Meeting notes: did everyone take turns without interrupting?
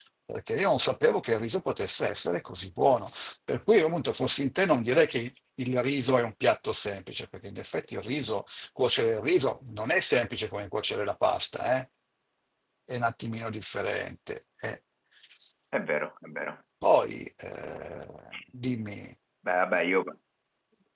Yes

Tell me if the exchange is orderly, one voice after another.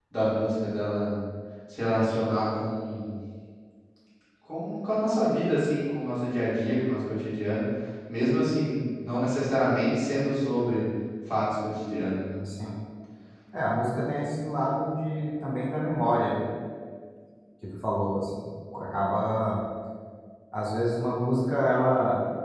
Yes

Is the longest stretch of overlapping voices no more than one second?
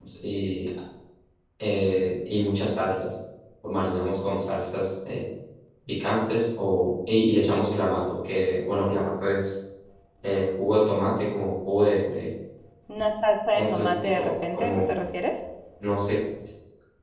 No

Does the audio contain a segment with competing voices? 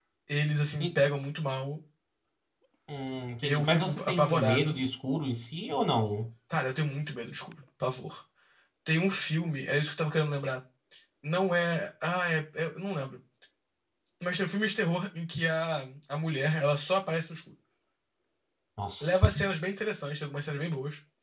Yes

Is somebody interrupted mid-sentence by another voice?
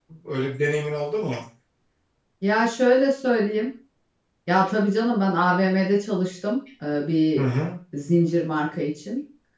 No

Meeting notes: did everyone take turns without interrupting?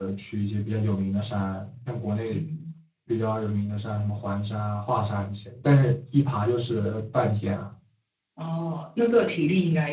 Yes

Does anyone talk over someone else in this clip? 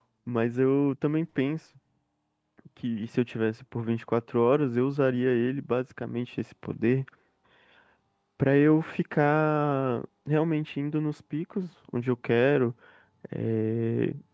No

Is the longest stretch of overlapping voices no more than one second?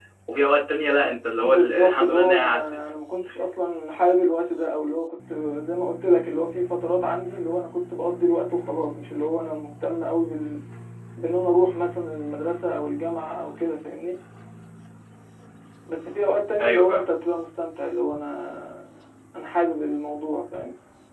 No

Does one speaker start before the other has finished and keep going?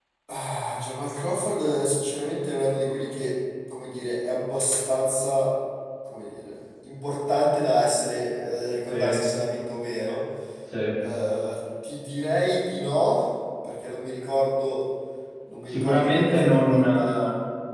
Yes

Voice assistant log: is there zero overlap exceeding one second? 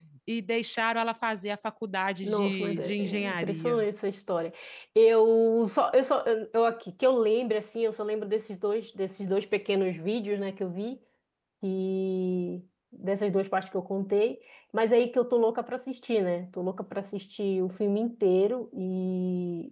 No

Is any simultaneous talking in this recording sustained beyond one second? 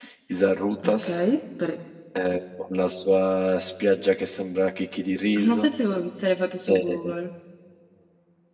No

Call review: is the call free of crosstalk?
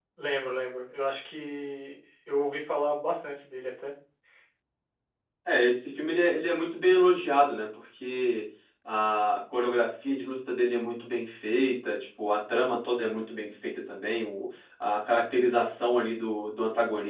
Yes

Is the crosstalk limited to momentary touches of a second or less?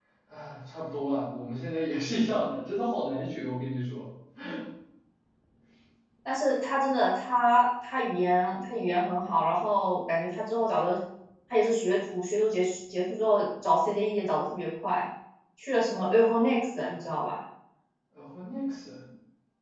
Yes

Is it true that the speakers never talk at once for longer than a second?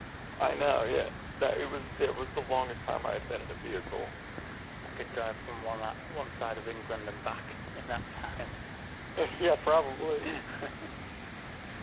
Yes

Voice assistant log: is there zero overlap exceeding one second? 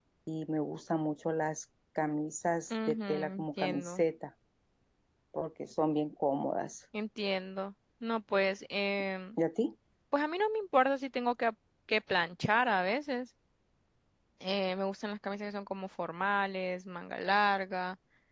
No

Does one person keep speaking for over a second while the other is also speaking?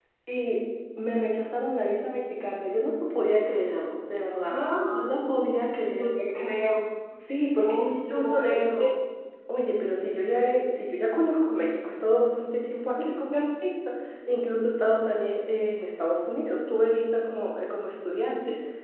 Yes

